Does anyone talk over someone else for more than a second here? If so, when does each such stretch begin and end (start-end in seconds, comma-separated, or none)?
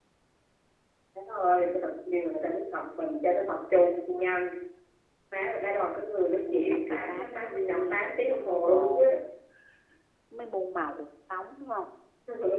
6.5-9.1